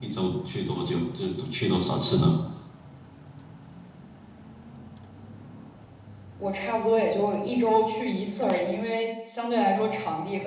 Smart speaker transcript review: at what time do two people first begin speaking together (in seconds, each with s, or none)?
none